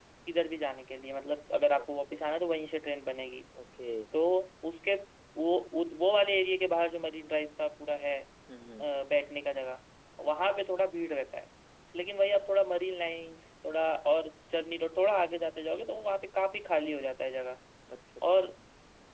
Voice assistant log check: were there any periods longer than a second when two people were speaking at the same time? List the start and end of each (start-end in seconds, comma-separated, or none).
none